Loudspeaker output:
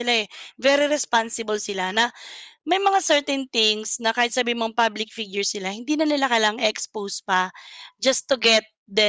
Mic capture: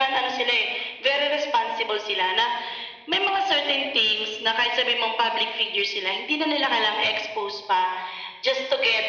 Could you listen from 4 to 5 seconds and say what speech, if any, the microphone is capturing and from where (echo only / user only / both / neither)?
echo only